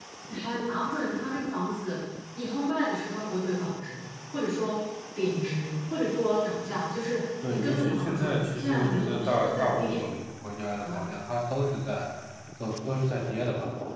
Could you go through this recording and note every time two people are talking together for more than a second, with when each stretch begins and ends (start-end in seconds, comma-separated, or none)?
7.5-10.0